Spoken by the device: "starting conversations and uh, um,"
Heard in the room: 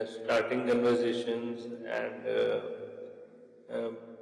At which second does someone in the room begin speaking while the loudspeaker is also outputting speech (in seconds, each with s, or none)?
none